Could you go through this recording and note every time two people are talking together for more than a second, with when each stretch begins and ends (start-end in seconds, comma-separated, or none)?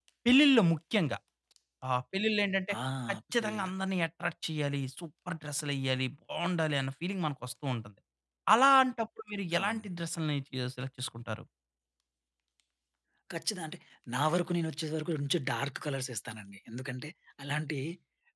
none